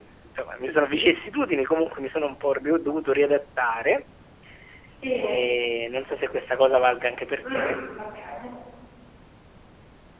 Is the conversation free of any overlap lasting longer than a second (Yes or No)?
Yes